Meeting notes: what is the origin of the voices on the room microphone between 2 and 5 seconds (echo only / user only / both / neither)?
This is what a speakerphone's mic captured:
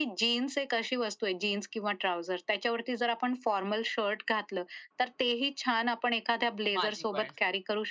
echo only